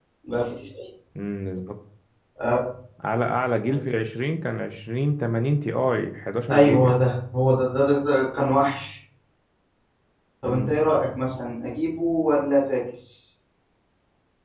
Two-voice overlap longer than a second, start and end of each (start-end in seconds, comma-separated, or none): none